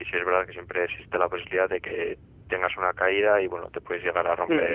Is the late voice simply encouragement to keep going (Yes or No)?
No